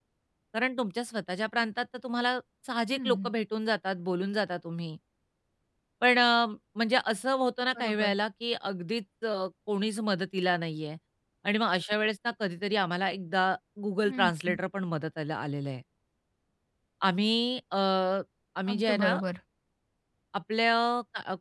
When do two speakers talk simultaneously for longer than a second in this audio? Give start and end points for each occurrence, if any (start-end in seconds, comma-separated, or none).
none